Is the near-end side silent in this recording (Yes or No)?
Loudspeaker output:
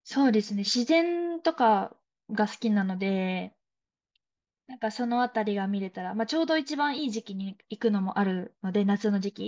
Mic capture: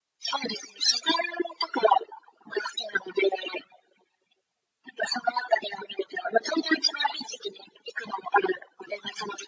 Yes